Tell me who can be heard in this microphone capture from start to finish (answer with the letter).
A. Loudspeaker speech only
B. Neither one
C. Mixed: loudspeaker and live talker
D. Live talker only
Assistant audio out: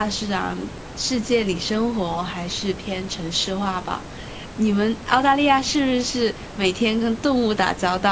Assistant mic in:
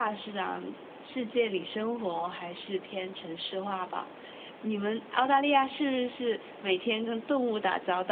A